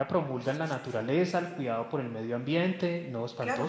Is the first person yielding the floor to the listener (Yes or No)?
Yes